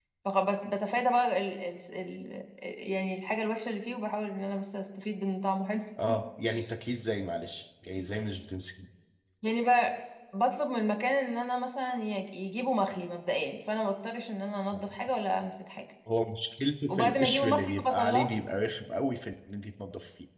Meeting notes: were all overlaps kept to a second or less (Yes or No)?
No